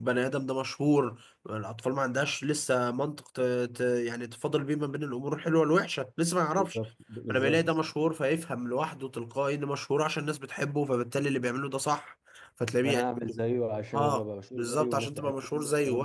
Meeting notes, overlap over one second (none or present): present